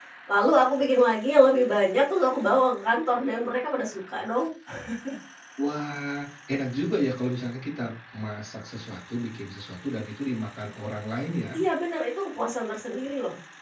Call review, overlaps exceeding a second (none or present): none